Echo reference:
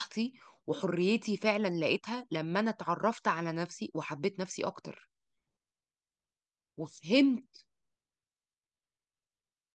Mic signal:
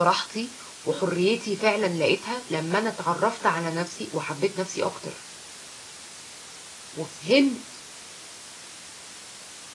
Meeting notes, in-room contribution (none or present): none